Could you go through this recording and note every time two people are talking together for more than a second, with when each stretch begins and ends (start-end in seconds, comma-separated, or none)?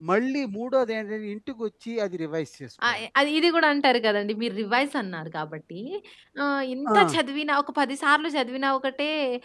none